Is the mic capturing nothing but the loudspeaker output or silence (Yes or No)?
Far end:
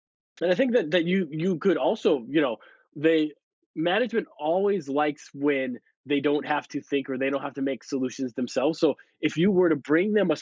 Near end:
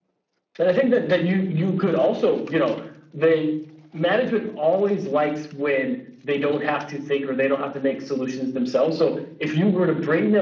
Yes